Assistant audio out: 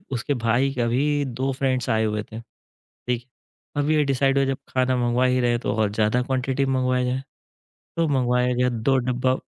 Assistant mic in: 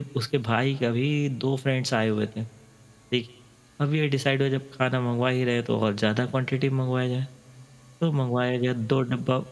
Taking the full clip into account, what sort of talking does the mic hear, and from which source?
echo only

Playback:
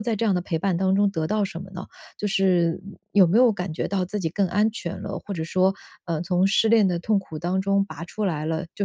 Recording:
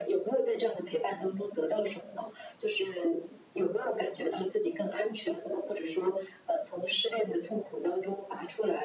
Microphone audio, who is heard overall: echo only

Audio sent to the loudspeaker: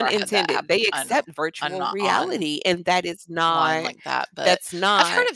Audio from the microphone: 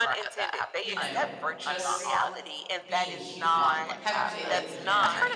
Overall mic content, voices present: both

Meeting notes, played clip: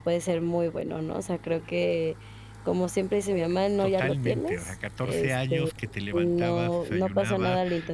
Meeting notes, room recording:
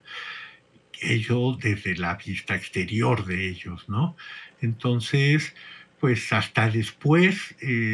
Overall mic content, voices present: user only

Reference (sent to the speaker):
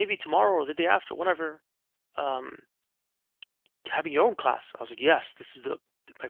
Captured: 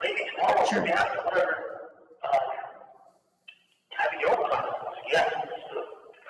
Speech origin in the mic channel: both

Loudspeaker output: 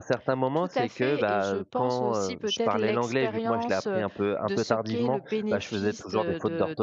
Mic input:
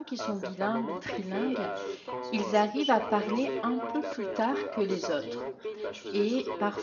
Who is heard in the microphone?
both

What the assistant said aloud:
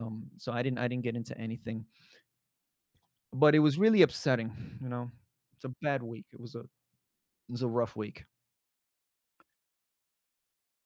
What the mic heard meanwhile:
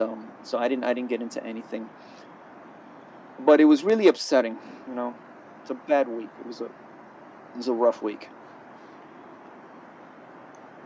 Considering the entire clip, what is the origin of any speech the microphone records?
echo only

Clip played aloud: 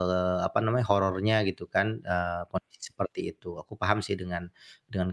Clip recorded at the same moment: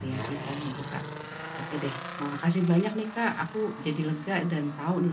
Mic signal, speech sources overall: user only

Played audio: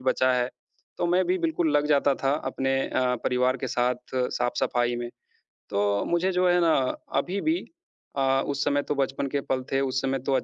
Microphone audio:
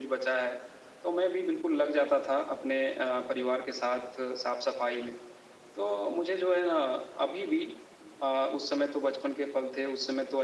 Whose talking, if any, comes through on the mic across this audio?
echo only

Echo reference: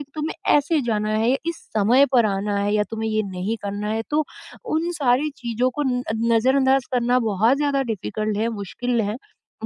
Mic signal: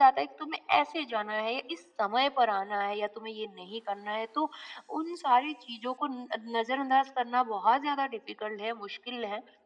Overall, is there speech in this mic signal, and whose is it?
echo only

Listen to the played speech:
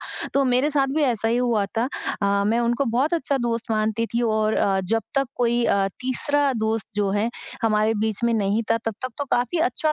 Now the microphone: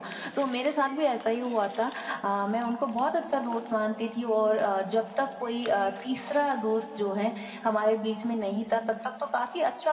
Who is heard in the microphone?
echo only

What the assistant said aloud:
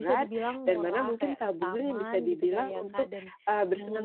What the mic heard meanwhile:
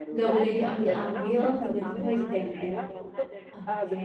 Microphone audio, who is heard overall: both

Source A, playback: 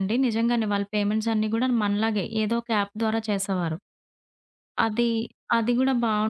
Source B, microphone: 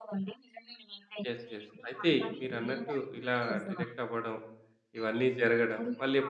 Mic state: both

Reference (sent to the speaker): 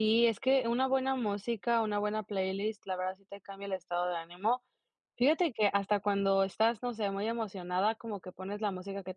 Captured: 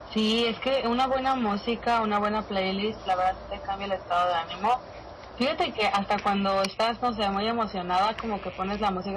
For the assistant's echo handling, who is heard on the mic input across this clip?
echo only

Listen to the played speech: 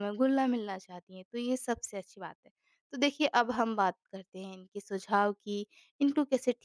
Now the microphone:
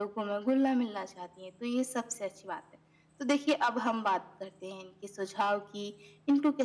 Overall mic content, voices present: echo only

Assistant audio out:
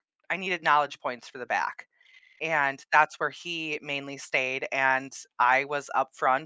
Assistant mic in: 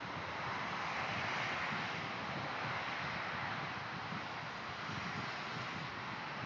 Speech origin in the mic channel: neither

